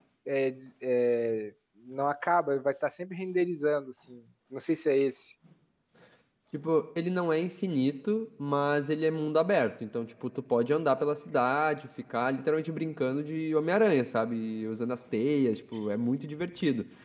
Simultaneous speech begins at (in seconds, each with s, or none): none